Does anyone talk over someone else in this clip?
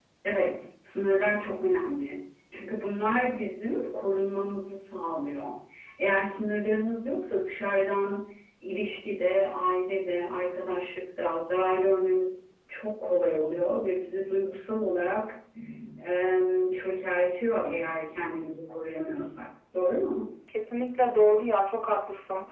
No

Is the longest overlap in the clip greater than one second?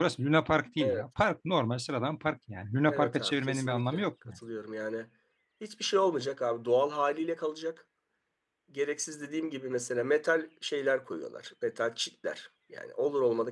Yes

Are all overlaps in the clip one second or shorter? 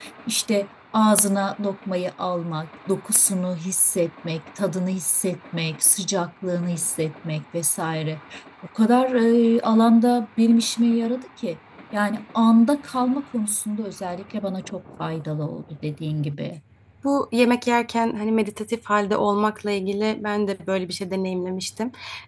Yes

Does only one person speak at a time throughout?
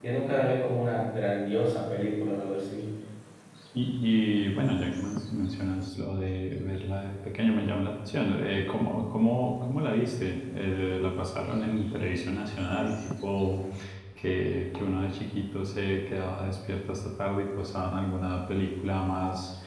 Yes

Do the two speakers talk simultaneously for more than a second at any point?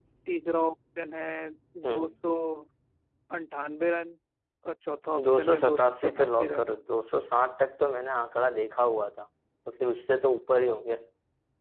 Yes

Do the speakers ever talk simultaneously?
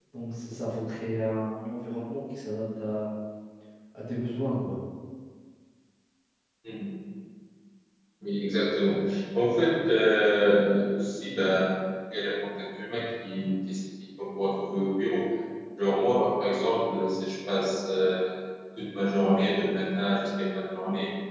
No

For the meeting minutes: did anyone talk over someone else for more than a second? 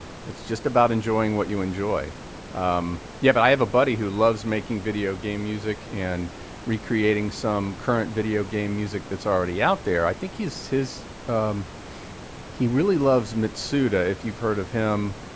No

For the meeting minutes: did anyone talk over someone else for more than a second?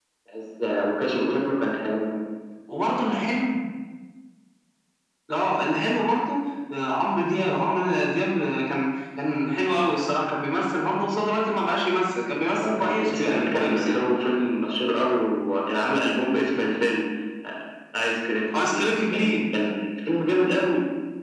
Yes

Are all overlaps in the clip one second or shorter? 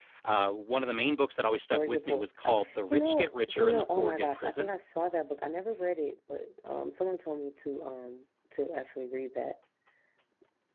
No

